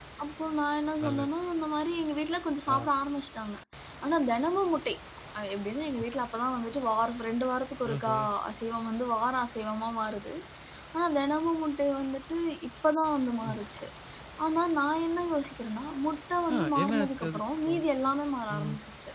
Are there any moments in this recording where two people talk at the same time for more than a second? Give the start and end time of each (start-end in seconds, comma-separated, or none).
16.5-17.8